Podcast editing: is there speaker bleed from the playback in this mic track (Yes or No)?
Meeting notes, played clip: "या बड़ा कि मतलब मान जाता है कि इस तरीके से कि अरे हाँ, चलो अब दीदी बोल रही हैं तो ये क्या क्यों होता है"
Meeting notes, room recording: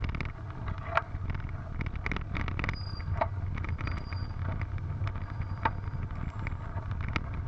No